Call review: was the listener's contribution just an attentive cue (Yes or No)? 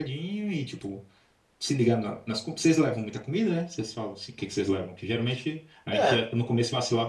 Yes